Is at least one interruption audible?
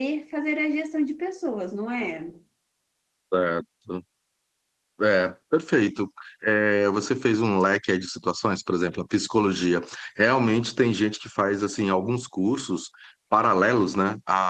No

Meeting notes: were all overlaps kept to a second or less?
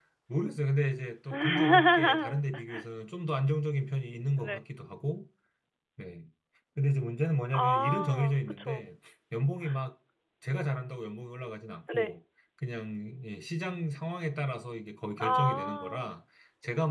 No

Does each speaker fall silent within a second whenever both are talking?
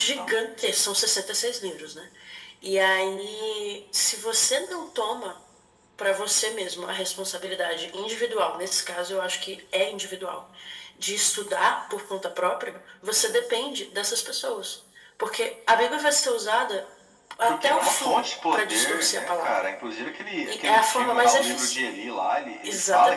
No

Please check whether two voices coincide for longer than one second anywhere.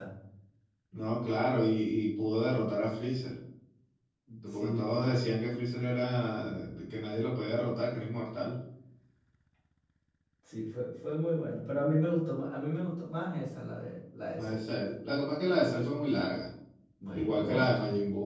No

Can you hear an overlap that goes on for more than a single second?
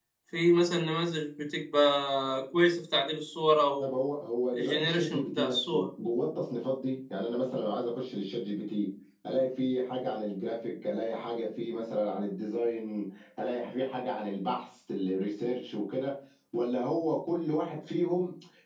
Yes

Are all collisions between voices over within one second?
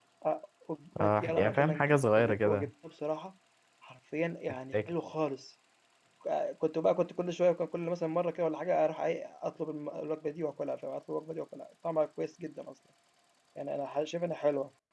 No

